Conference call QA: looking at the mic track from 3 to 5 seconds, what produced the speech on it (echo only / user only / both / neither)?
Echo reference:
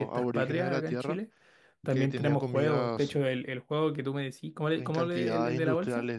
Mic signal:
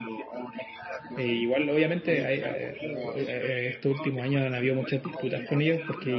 both